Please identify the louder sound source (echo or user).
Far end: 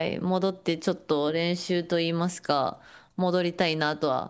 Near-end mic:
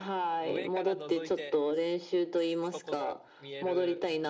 echo